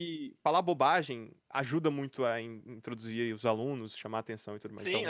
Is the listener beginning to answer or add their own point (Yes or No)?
Yes